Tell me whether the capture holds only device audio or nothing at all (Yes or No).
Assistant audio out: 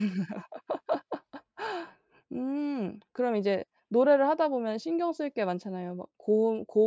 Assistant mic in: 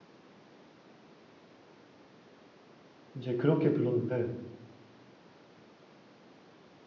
No